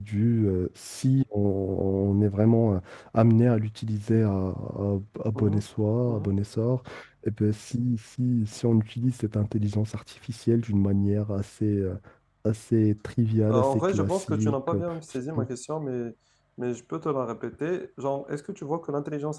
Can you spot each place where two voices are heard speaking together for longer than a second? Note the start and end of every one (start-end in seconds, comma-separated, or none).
13.5-14.8